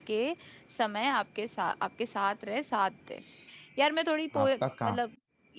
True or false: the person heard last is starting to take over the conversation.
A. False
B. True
A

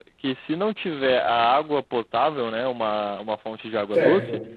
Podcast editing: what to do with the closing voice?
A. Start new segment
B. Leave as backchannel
B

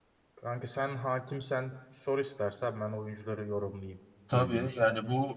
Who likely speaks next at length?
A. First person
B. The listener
B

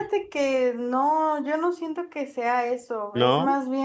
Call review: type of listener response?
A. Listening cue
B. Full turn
A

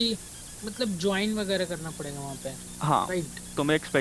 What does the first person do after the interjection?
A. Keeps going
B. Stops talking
B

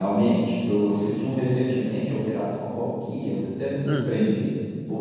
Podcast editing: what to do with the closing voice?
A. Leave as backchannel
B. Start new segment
A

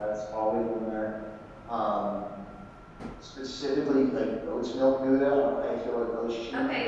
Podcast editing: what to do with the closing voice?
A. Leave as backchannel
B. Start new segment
B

